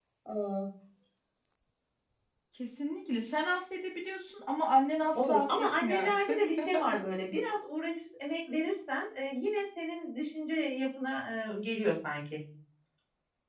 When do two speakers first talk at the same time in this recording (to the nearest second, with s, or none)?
5 s